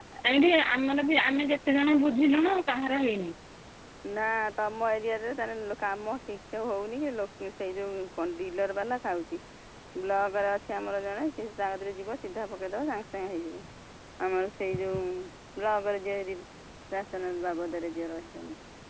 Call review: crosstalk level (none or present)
none